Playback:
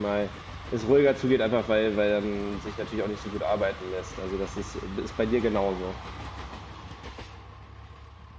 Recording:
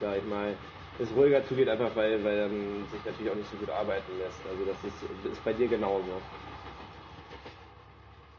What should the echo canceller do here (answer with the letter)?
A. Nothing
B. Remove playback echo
B